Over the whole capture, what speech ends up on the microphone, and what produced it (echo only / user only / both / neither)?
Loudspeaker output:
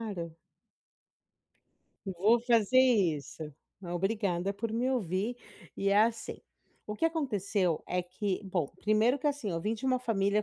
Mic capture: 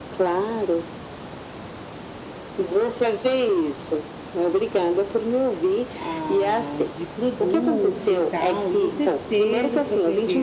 both